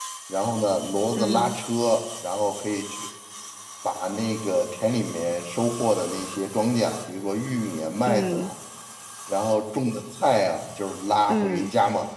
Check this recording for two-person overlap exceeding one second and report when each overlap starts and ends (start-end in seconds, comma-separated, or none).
none